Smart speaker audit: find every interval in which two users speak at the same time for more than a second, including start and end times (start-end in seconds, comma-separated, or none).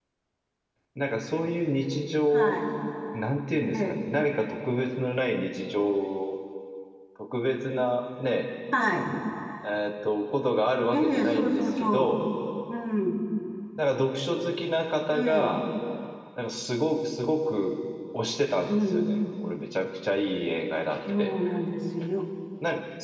10.9-12.2